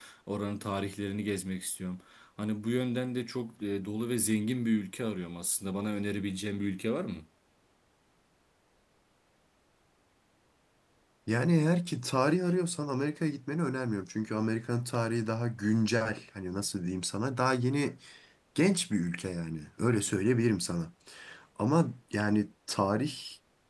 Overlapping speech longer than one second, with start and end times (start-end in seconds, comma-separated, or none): none